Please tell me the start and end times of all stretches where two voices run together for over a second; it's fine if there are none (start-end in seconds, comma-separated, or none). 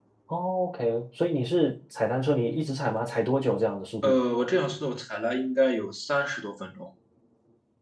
none